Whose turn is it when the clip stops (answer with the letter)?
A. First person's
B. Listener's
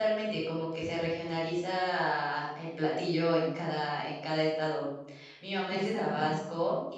A